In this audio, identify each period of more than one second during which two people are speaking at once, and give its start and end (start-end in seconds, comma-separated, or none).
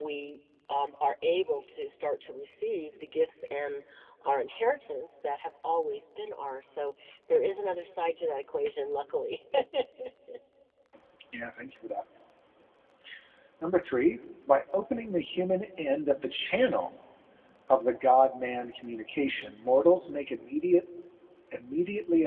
none